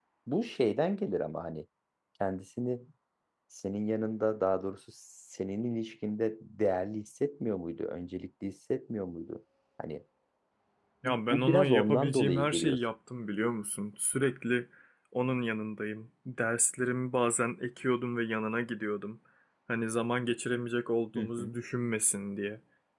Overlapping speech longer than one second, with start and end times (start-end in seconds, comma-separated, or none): 11.0-12.8